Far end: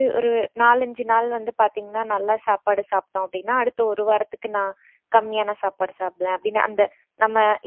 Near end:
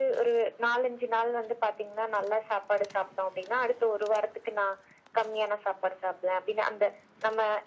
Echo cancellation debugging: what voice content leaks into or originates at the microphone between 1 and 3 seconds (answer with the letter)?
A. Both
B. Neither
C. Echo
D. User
C